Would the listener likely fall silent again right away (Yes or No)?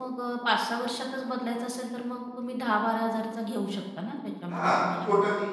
No